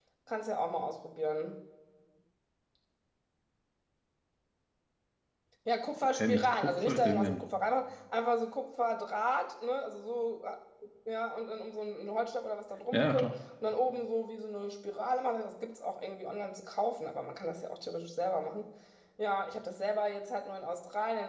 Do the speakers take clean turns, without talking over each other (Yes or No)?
No